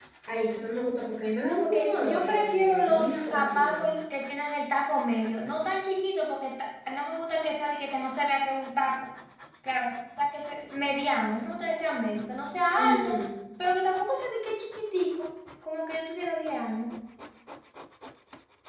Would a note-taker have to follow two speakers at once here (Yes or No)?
Yes